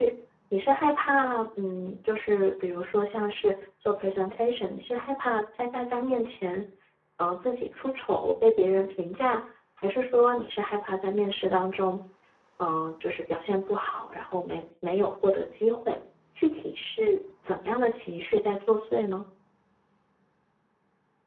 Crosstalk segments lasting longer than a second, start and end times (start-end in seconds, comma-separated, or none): none